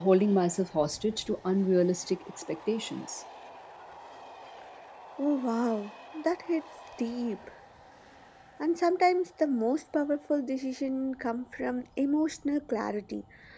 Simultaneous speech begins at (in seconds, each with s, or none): none